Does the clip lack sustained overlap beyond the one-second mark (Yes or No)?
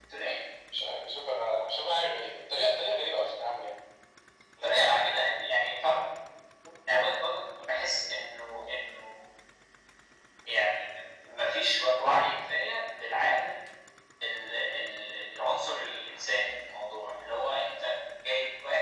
Yes